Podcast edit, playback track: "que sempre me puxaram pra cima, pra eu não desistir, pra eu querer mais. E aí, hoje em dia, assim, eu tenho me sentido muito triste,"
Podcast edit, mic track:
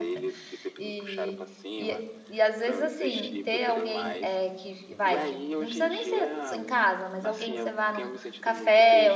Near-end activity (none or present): present